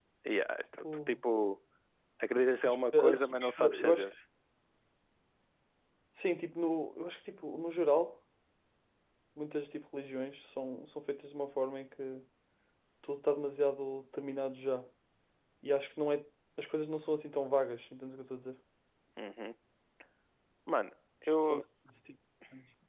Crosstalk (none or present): present